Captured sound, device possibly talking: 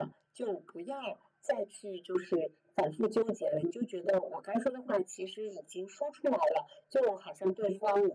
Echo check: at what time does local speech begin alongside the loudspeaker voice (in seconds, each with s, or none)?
none